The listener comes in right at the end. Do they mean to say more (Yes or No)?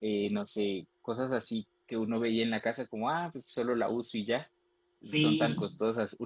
No